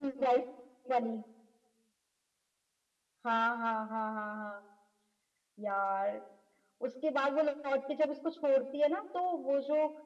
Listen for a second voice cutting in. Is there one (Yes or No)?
No